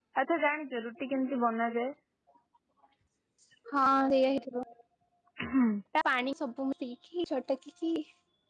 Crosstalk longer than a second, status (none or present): none